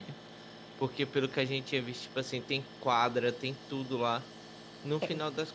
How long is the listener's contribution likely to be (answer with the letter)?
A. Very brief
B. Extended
A